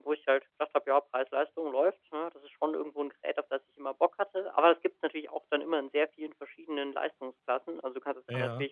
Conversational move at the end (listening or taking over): listening